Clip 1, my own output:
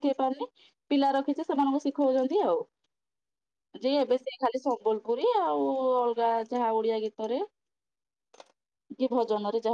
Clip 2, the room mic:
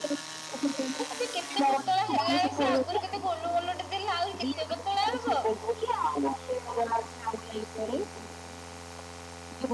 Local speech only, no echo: ଏବେ କେତେ ପତଳା ହେଲାଣି ସେ ଆଗରୁ କେତେ ଗୋଲ ଗୋଲଟେ ଦେଲା ଆହୁରି କେତେ ପତଳା ହବ।

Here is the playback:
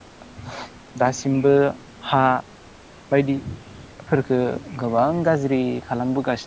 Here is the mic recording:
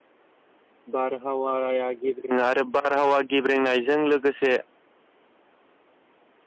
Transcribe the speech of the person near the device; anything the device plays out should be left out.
बारहावाया गेब्रेङो आरो बारहावा गेब्रेंनायजों लोगोसे

